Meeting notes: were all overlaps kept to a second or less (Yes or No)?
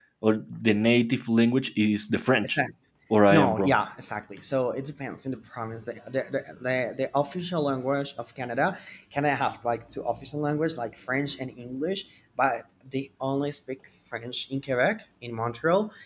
Yes